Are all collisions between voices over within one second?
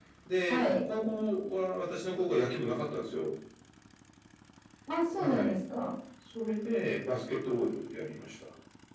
Yes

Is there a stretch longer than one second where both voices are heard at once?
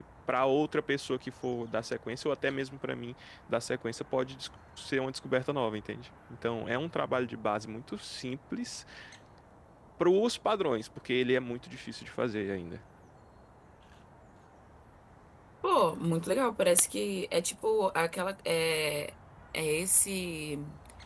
No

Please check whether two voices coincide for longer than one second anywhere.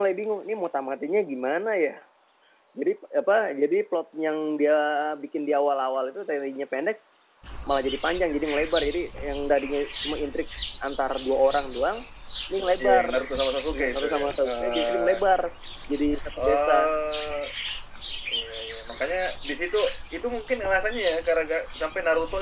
Yes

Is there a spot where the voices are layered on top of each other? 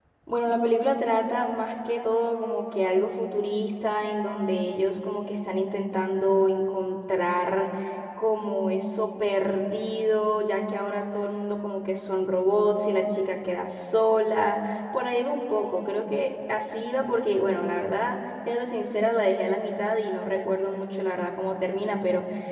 No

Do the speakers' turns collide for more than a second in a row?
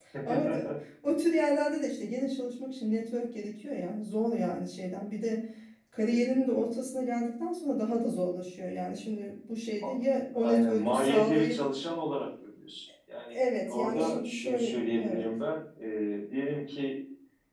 Yes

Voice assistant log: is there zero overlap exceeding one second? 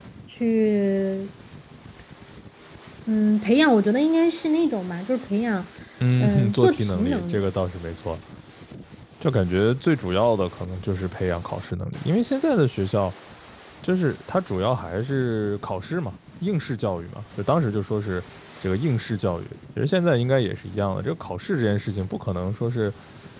No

